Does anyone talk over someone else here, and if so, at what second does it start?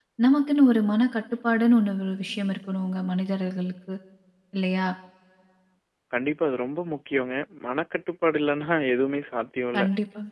none

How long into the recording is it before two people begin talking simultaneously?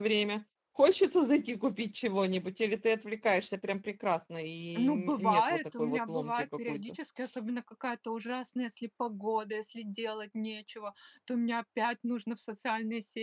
4.8 s

